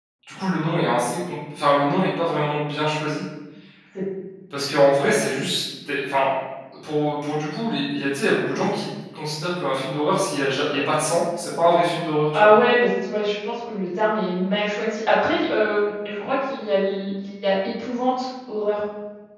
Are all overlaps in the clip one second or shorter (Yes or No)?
Yes